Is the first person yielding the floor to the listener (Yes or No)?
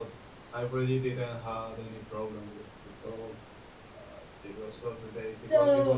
Yes